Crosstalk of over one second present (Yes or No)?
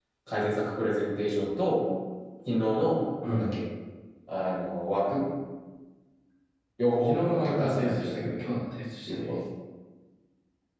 Yes